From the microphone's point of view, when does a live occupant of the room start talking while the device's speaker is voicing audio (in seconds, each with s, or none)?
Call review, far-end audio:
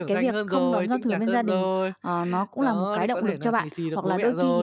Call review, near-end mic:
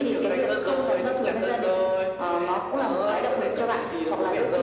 none